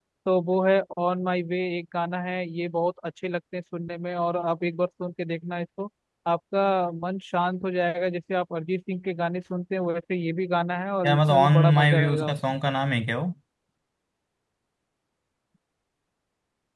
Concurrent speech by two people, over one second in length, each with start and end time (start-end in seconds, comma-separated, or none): 11.1-12.6